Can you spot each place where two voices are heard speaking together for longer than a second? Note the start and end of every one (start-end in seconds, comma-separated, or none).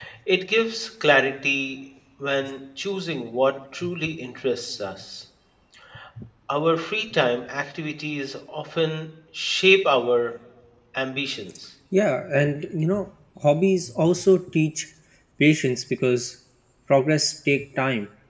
none